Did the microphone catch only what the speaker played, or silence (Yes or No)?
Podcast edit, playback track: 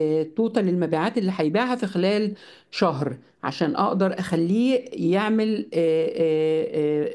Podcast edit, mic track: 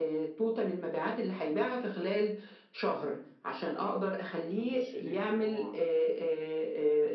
No